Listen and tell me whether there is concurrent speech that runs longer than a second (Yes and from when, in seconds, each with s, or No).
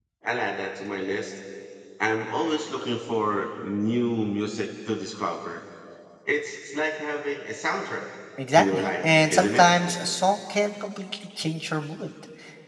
Yes, from 8.5 s